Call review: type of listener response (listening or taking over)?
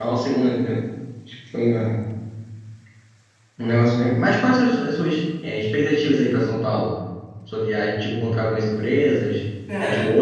listening